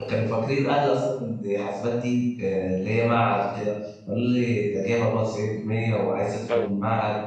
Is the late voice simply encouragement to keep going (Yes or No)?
Yes